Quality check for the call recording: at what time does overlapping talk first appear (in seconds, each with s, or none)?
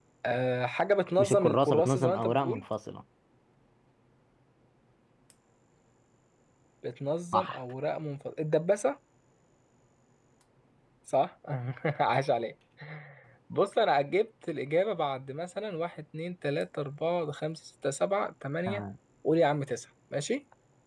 1.2 s